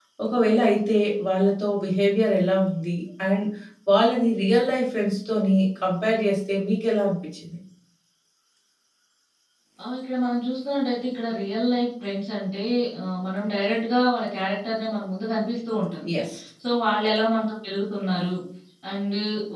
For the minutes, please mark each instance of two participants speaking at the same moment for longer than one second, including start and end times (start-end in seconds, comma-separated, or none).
none